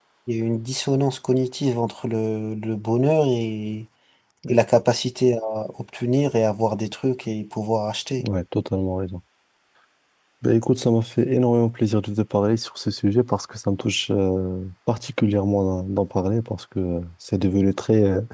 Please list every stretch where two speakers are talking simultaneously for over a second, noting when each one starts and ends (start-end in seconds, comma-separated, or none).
none